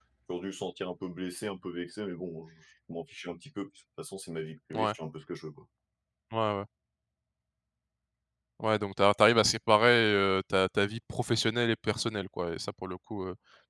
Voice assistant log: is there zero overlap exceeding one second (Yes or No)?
Yes